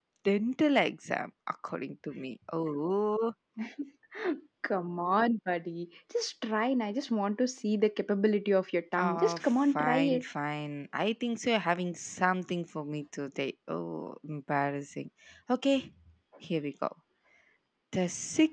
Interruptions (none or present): present